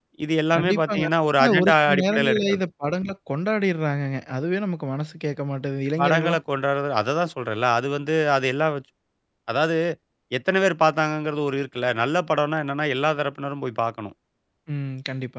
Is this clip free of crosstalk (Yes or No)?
No